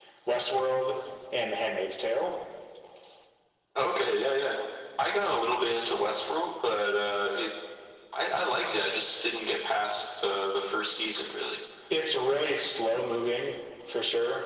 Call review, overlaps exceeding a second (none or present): none